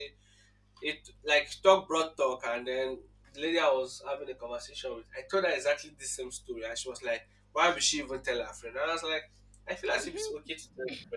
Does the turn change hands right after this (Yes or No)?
No